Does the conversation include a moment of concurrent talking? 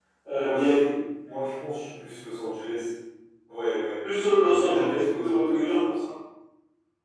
Yes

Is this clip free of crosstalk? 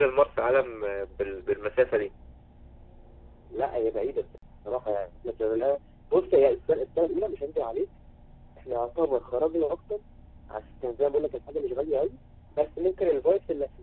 Yes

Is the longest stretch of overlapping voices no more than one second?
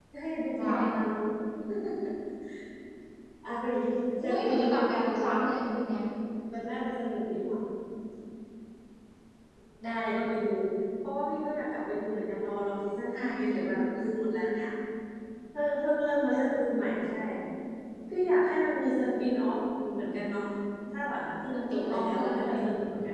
No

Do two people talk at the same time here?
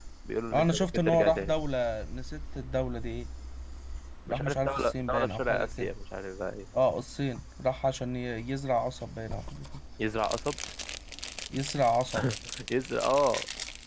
Yes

